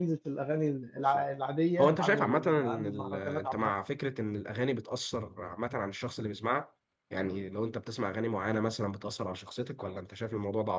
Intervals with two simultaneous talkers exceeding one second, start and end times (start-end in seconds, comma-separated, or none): 1.8-3.7